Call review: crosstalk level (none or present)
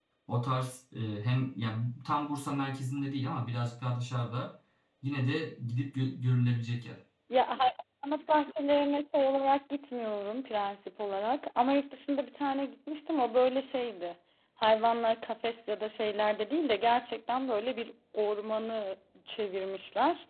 none